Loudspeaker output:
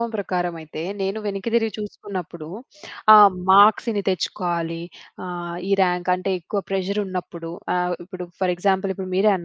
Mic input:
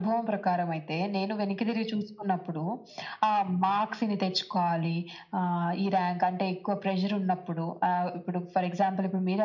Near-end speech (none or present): none